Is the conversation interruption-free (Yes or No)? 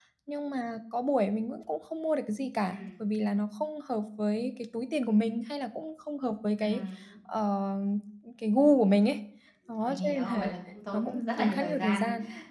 No